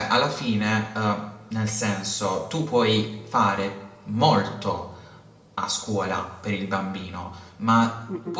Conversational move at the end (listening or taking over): listening